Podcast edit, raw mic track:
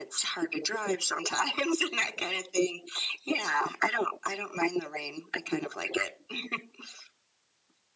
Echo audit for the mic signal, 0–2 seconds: echo only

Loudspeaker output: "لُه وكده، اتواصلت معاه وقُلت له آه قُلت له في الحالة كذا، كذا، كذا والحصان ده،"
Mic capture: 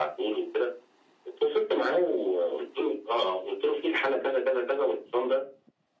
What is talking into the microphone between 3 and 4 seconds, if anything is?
echo only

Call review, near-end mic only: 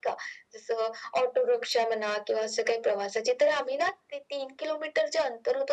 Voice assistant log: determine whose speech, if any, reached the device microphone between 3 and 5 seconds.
echo only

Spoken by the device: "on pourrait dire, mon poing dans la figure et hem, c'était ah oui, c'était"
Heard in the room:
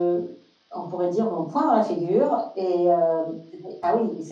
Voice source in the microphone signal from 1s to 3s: echo only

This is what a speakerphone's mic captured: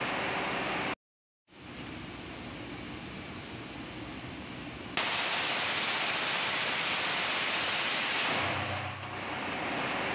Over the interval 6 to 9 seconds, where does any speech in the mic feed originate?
neither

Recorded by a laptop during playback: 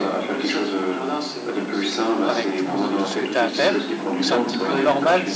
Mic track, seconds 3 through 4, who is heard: both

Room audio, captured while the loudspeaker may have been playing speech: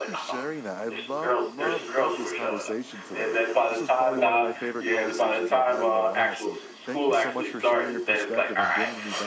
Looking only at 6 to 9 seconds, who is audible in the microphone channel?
both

